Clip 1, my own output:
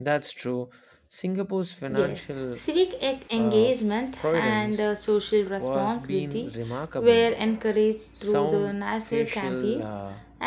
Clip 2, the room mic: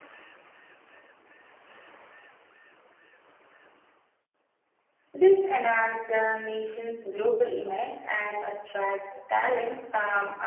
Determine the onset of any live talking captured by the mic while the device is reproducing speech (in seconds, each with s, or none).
5.1 s